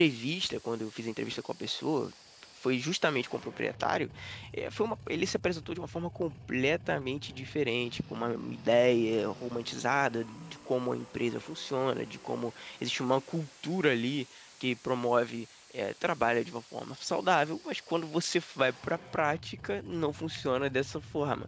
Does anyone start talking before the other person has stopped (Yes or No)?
No